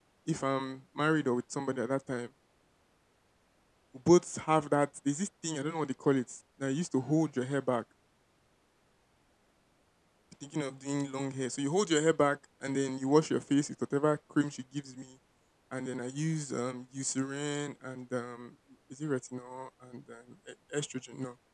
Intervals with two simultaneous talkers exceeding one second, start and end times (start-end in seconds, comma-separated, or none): none